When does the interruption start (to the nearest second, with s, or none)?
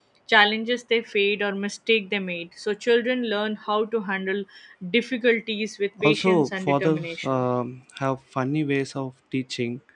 6 s